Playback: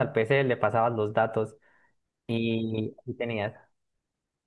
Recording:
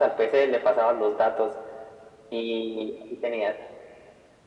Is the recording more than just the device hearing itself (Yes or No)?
No